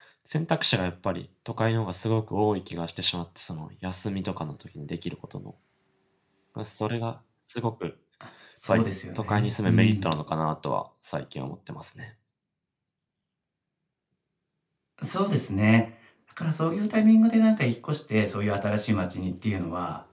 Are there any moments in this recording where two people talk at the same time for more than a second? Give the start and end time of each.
8.7-10.2

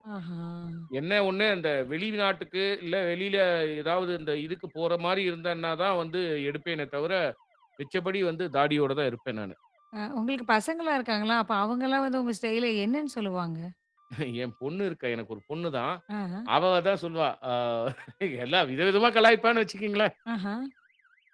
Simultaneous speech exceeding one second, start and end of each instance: none

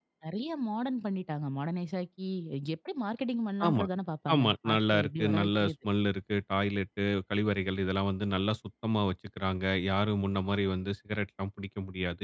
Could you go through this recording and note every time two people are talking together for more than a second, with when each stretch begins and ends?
4.3-5.7

